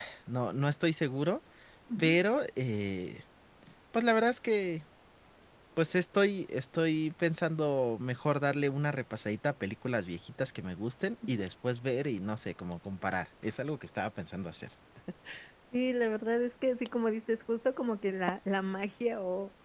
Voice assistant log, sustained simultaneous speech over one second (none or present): none